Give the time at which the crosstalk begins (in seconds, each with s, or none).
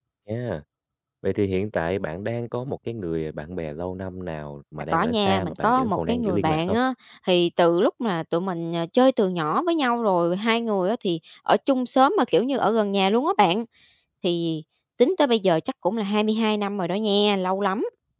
4.9 s